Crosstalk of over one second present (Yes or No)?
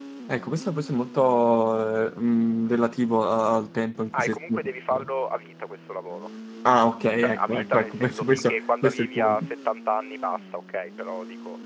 Yes